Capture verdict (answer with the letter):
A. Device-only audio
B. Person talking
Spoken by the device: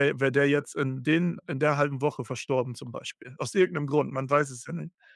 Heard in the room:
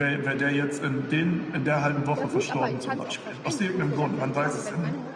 B